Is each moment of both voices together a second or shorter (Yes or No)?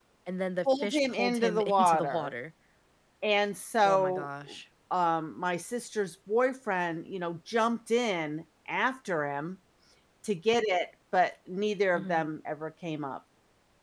No